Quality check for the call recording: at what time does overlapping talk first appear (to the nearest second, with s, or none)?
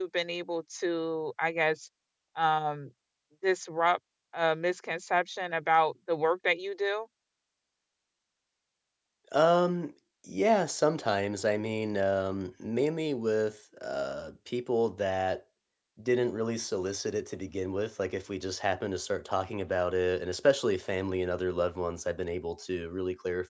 none